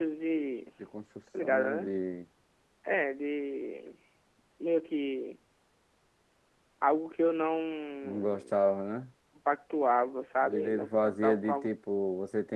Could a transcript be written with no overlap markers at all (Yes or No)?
No